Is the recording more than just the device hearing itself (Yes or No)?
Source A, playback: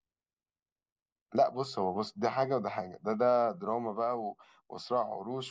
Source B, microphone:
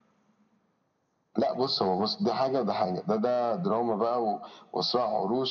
No